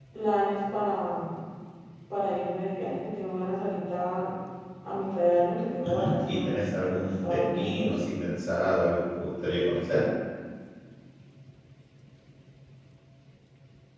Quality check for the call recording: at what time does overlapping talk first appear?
5.8 s

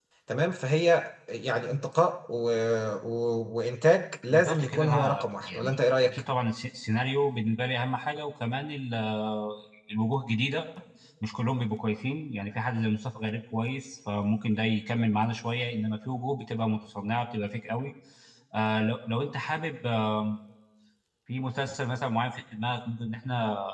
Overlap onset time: 4.3 s

